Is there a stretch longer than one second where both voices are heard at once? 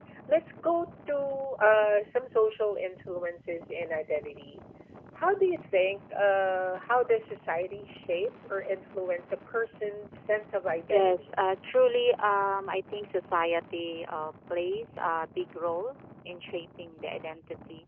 No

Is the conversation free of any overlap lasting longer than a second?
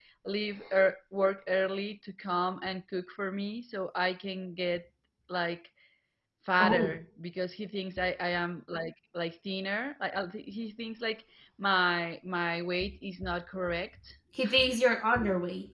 Yes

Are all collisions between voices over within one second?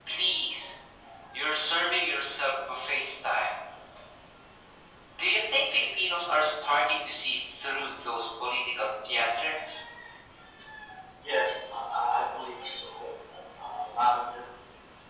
Yes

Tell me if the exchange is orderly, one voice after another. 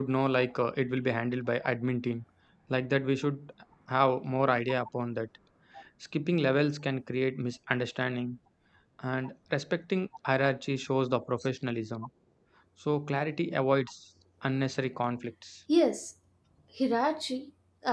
Yes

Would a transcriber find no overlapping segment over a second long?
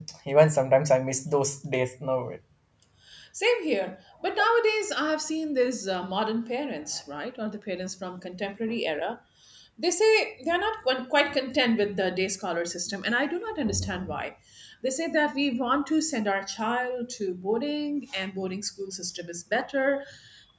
Yes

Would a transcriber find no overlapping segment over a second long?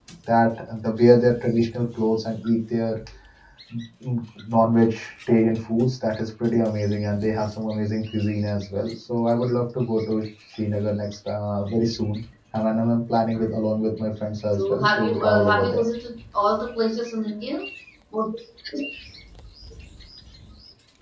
No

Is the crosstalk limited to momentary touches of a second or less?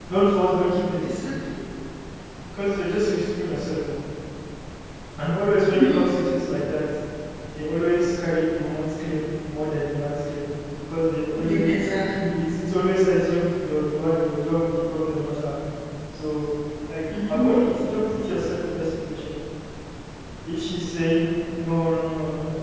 Yes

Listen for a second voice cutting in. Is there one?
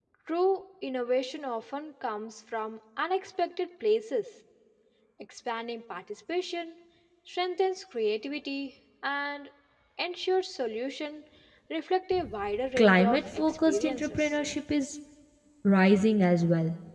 Yes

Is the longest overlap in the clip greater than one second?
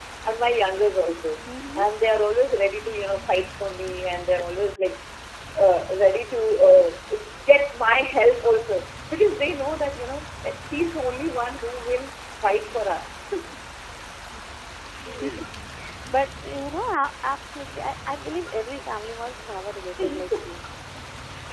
No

